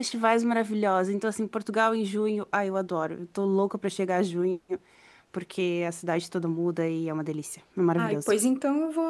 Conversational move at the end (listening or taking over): taking over